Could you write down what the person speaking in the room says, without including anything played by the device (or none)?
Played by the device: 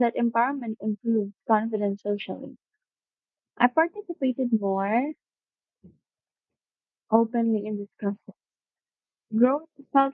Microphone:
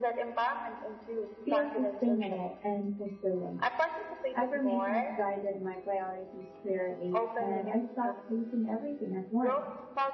feels sustainable and fulfilling. Affirmations guided my priorities clearly, and I stopped chasing everything at once.